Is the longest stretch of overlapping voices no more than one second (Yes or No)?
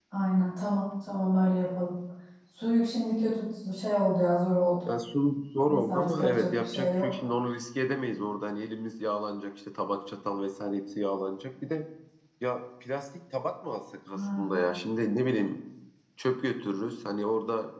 No